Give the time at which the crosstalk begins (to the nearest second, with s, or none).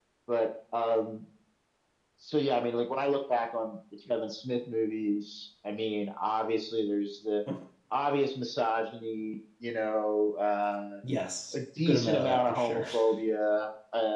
12 s